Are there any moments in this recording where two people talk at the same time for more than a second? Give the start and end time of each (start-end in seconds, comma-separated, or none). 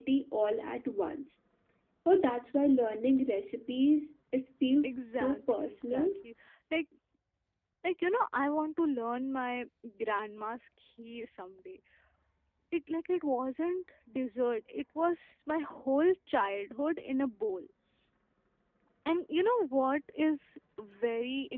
4.8-6.1